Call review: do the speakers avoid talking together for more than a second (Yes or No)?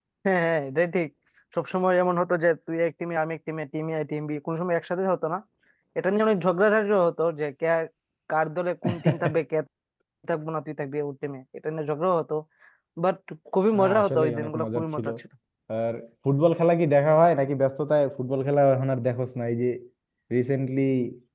No